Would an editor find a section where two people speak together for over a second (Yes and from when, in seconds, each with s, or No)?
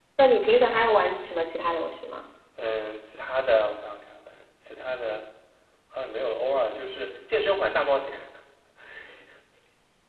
No